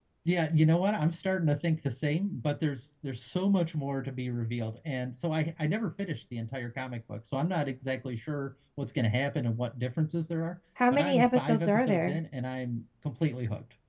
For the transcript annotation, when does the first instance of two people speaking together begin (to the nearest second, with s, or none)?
11 s